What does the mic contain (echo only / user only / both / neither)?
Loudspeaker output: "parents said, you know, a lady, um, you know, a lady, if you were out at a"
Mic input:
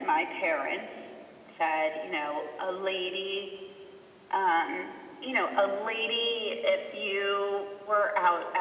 echo only